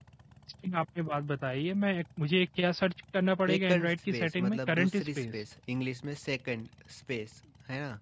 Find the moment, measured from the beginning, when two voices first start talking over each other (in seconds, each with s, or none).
3.5 s